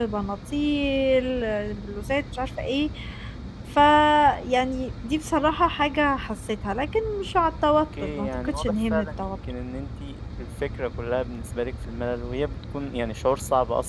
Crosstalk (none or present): present